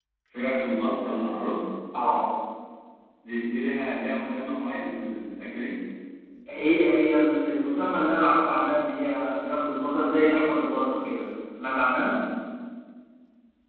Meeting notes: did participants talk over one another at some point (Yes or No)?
No